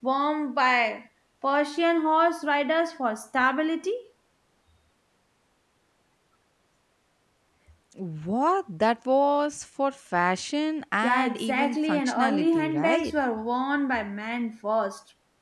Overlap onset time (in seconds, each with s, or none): 11.0 s